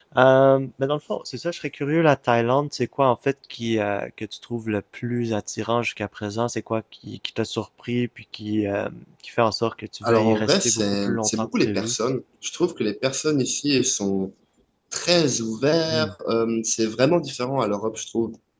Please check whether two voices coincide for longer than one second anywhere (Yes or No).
Yes